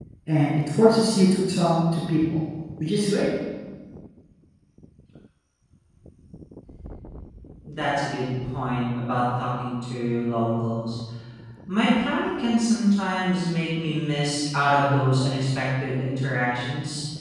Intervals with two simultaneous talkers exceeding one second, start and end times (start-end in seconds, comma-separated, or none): none